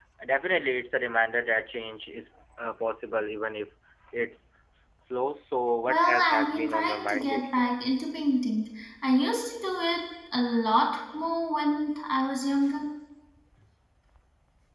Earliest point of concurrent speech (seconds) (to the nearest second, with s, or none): 6 s